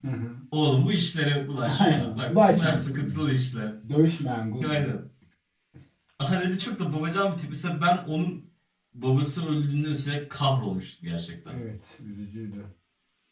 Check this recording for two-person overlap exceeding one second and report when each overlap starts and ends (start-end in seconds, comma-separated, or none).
1.8-3.3